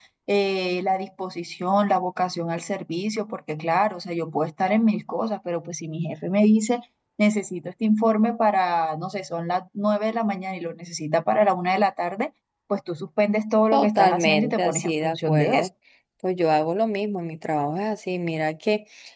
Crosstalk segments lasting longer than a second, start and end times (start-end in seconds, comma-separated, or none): 13.7-15.7